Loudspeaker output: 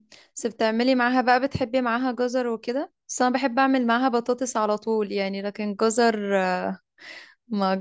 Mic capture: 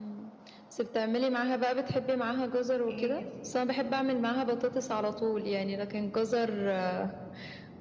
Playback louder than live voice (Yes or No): Yes